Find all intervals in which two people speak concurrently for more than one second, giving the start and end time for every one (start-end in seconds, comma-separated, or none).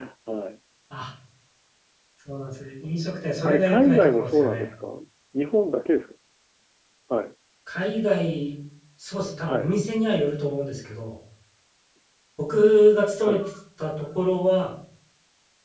3.4-4.6